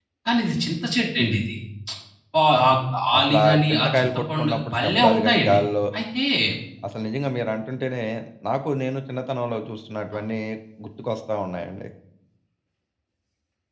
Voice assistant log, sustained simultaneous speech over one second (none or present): present